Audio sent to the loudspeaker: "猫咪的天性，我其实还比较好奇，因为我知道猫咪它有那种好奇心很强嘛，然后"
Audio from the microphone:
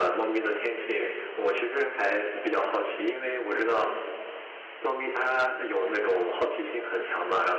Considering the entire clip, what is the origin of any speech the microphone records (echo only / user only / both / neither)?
echo only